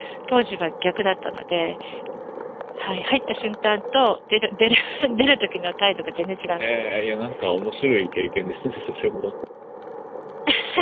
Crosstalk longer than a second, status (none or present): none